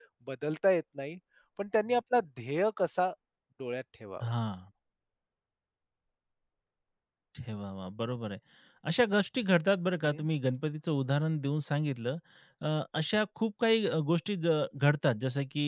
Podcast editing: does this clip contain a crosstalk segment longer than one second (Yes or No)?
No